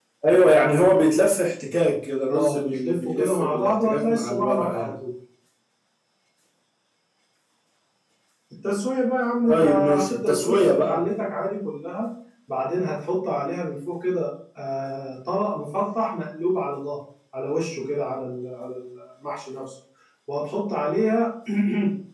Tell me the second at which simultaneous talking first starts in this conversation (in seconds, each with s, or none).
2.3 s